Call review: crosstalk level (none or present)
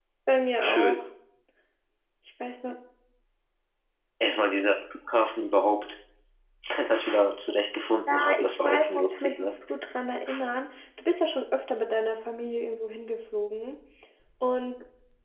present